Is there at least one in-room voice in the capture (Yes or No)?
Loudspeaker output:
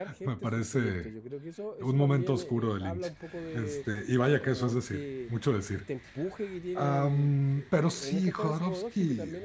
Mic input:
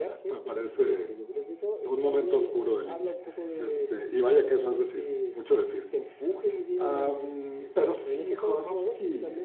No